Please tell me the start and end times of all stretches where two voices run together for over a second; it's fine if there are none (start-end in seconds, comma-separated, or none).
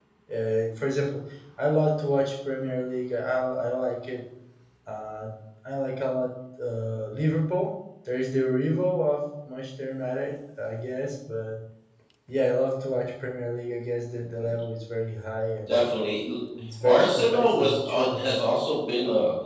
16.8-18.4